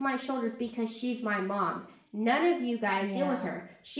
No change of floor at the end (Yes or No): Yes